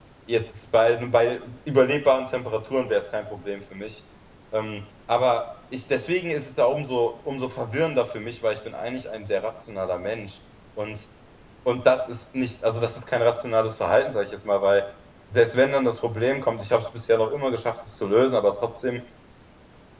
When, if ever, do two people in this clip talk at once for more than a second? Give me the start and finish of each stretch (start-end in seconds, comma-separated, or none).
none